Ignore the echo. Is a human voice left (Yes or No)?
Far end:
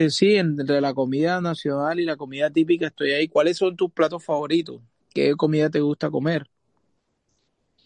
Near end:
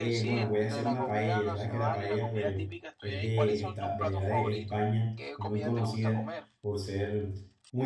Yes